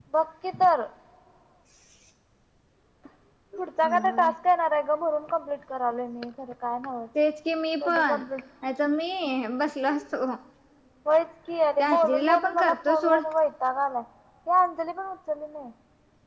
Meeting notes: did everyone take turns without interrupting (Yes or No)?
No